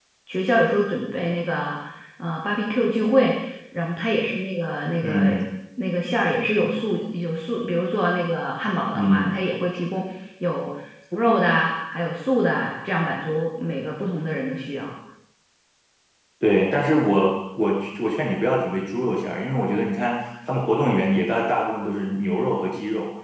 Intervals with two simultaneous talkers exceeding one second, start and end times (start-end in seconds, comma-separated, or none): none